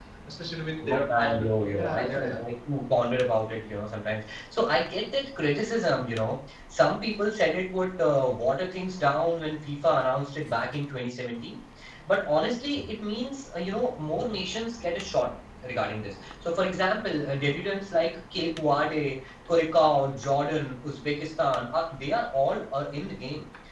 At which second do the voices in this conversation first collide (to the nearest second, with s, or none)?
1 s